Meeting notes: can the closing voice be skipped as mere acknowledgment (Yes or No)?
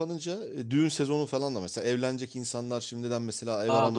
Yes